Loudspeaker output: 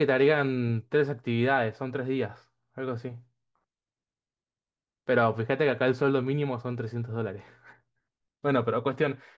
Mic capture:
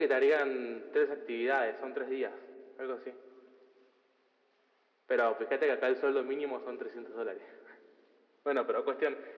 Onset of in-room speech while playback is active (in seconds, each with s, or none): none